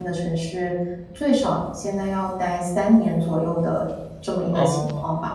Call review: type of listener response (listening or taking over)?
taking over